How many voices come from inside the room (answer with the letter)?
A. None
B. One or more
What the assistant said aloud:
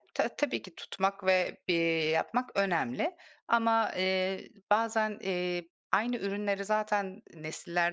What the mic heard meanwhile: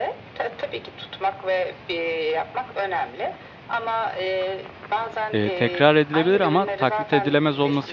B